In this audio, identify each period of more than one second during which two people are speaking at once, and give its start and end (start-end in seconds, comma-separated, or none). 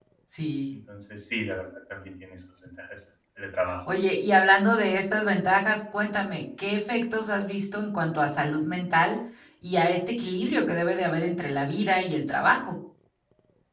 none